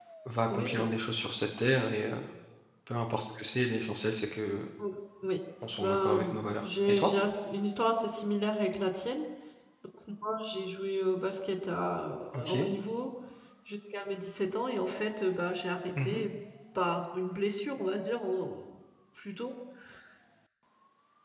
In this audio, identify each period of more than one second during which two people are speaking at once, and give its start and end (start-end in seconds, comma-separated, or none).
5.8-7.1